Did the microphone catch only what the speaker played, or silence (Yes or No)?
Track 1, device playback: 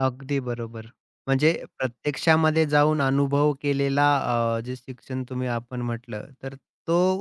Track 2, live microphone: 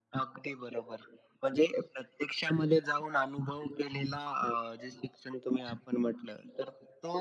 Yes